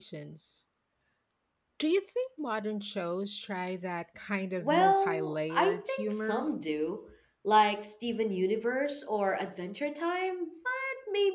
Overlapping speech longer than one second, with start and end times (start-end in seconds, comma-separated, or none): 4.6-6.5